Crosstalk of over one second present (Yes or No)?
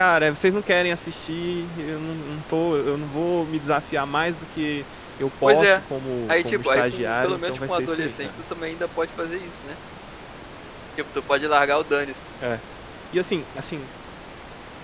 Yes